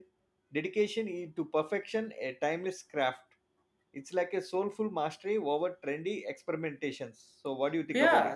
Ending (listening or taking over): taking over